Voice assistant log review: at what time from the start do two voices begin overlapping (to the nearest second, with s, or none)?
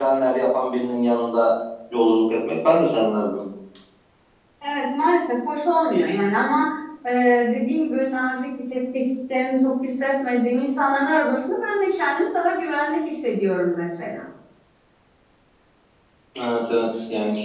none